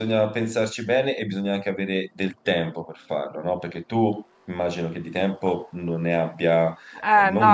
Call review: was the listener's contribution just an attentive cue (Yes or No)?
No